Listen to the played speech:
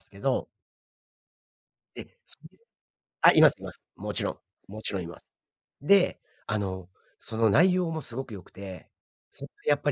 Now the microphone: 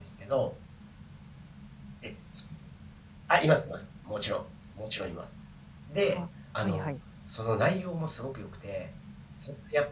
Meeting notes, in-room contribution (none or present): present